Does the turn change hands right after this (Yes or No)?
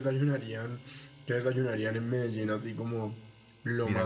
Yes